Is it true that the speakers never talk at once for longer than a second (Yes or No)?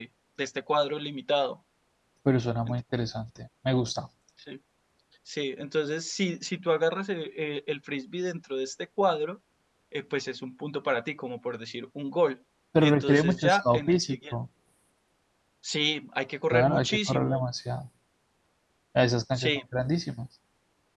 No